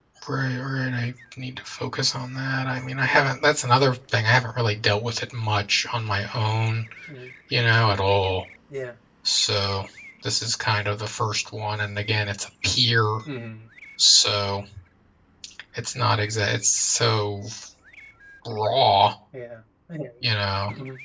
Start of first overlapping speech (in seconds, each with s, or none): none